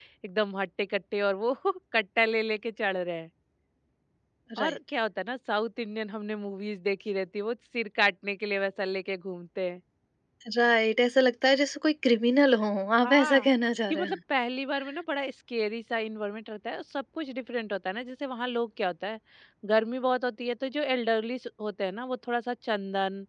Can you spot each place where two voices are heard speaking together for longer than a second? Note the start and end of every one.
none

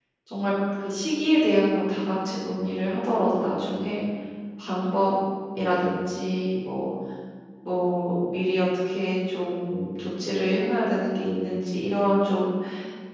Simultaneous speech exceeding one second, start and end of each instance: none

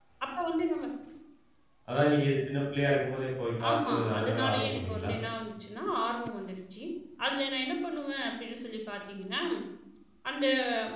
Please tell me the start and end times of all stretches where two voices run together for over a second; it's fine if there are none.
3.7-5.1

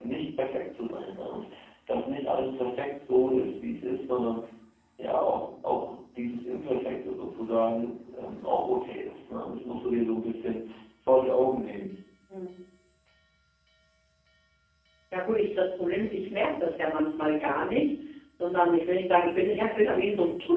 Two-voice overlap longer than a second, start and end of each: none

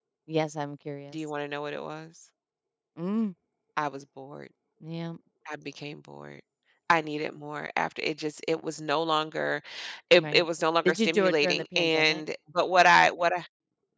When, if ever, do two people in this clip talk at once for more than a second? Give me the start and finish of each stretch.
10.8-12.2

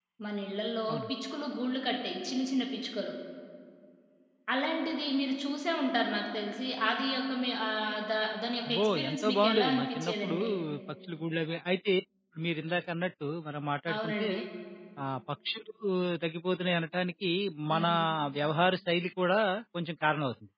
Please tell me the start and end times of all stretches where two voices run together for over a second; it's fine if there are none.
8.7-10.4

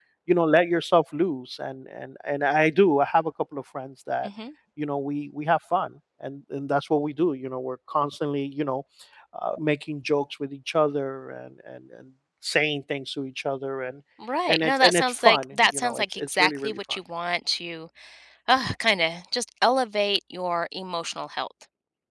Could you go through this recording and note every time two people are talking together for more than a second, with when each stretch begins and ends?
14.5-17.0

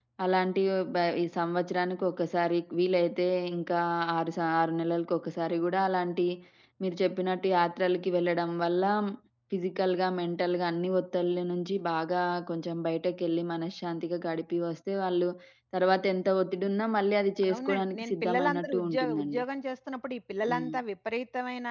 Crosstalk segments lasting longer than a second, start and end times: 17.5-19.4

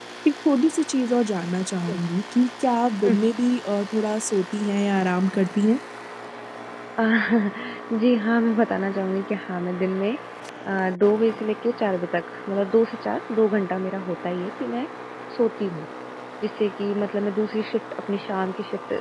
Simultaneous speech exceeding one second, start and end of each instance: none

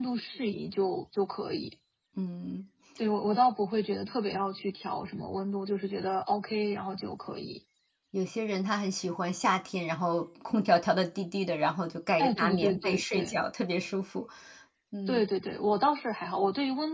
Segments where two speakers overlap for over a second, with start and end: 12.2-13.4

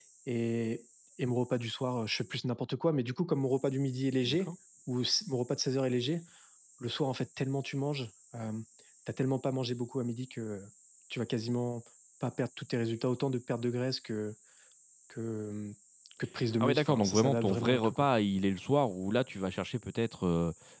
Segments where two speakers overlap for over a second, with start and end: 16.6-18.1

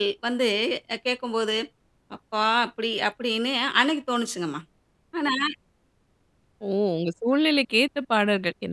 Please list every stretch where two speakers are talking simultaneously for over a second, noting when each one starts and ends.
none

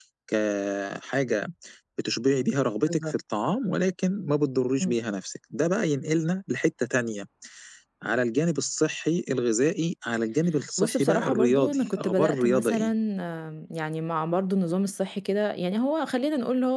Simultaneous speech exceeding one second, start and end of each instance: 10.8-12.9

